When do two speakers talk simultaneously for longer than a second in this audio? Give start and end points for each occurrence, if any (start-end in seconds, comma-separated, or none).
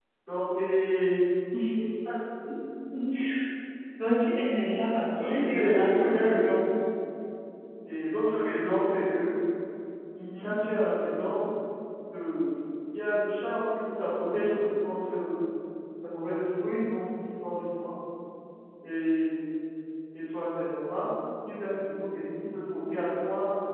5.2-6.6